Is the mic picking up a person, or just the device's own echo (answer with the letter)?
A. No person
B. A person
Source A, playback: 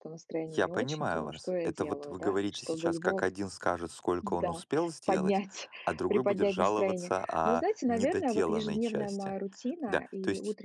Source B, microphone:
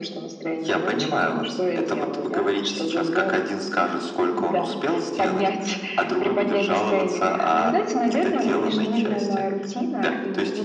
A